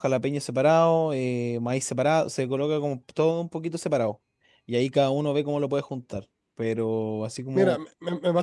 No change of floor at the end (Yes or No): No